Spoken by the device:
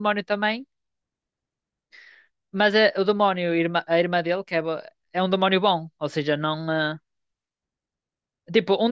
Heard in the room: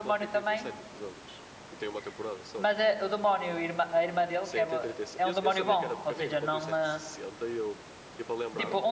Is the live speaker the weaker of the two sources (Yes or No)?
Yes